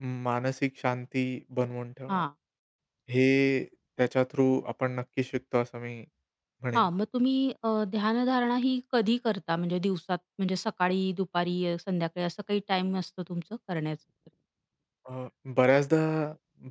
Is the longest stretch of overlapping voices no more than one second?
Yes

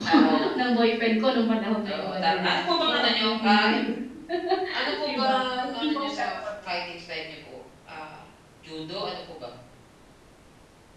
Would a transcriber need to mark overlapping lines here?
Yes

